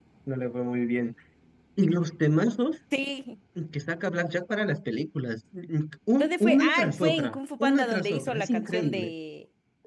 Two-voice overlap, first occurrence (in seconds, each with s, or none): 6.2 s